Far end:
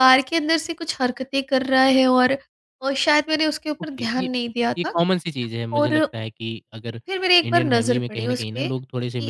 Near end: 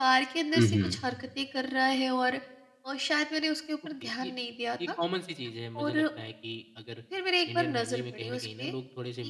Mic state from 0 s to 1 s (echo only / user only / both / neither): both